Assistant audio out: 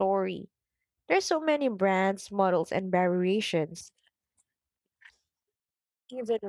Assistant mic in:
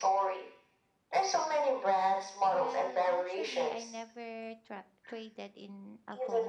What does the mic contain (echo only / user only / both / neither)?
both